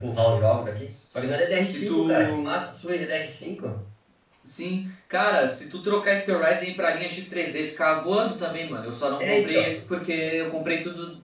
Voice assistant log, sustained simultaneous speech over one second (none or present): present